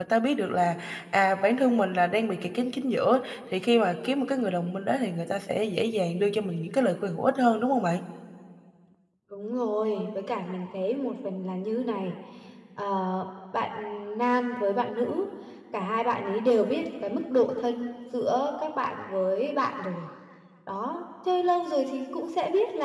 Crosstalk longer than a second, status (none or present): none